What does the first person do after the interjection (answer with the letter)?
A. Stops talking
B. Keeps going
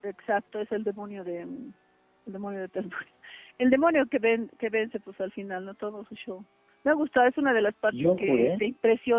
B